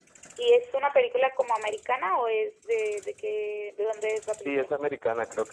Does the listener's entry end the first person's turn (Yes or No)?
Yes